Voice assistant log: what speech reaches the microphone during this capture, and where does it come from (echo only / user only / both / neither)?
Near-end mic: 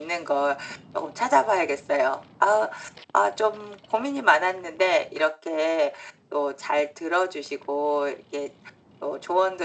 echo only